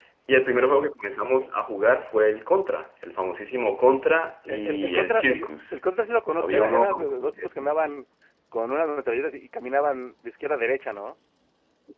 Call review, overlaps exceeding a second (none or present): present